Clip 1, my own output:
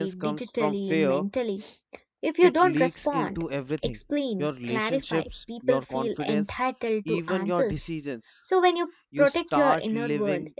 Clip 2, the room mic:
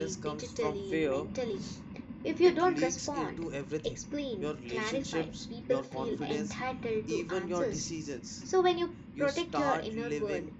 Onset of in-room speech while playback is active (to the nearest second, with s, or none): none